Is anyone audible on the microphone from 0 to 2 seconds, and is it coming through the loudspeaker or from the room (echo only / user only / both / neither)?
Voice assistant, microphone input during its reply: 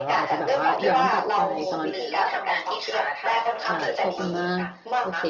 both